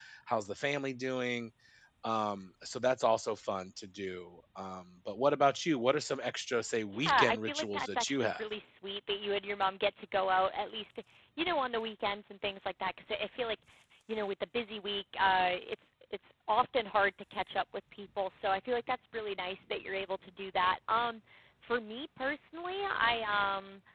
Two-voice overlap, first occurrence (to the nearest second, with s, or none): 7 s